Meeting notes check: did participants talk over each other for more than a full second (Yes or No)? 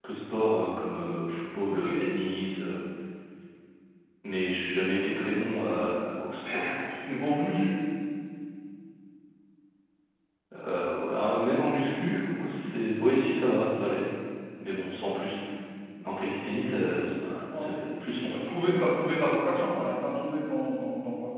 No